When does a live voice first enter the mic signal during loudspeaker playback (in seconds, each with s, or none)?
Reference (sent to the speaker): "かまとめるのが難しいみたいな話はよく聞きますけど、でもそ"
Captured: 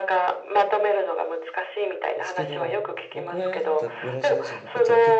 2.2 s